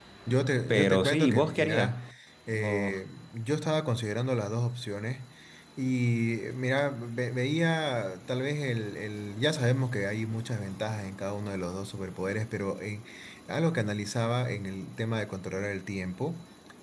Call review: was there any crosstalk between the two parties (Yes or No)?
Yes